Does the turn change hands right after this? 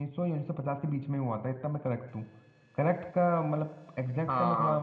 Yes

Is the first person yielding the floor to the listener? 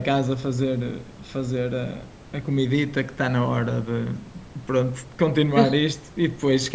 No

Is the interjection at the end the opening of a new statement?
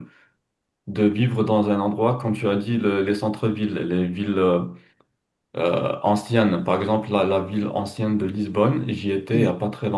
No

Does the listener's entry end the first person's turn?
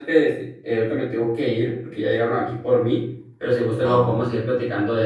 No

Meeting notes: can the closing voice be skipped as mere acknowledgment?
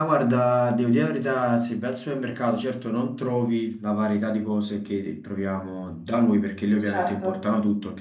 Yes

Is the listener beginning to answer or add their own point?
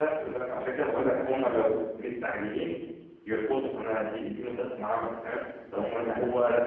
No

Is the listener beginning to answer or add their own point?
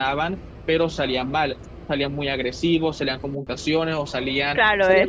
Yes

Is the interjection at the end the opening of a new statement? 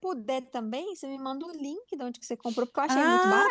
Yes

